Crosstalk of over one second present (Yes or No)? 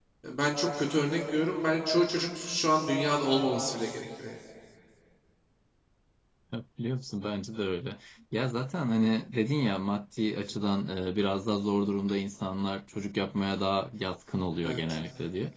No